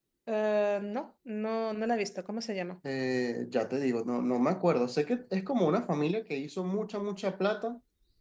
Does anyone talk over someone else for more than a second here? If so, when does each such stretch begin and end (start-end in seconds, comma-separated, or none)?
none